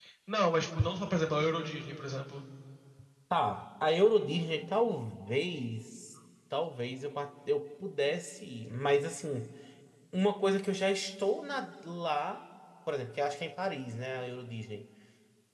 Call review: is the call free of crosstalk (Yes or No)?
Yes